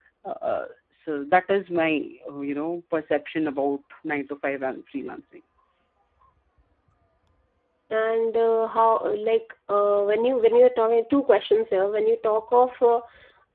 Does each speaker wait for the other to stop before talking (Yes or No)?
Yes